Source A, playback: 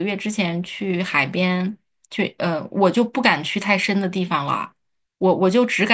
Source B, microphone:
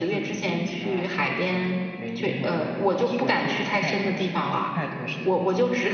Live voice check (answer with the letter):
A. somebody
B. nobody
A